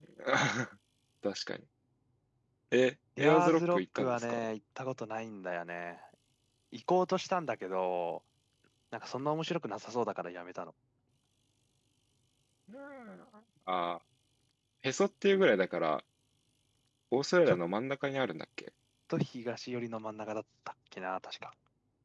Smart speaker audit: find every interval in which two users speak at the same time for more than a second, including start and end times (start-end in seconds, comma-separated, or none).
3.2-4.5